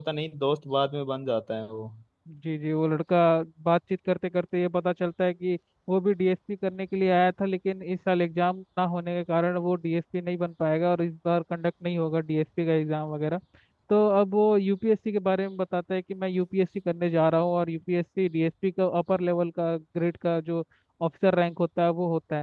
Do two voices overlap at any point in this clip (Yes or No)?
No